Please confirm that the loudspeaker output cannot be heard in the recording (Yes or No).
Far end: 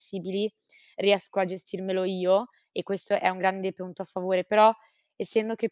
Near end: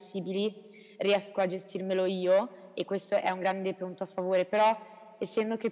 No